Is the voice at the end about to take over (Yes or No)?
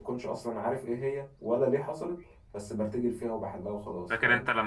Yes